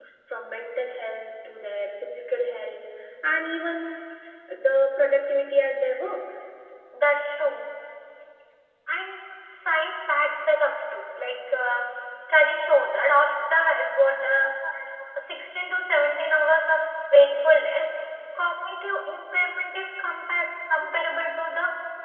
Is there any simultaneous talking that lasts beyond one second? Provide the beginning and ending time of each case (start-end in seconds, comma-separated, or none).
none